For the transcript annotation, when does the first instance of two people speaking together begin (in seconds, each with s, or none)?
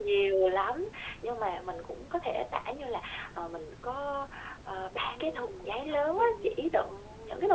4.9 s